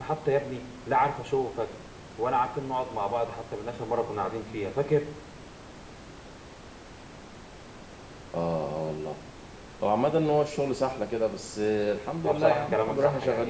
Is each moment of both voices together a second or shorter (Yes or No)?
No